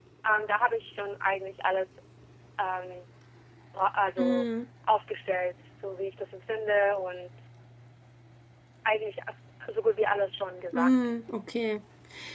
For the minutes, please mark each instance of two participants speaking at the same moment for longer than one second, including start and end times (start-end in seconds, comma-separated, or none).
none